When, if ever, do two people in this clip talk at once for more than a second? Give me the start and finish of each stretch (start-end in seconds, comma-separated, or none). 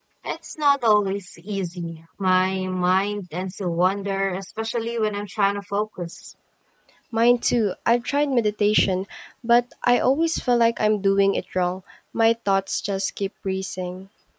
none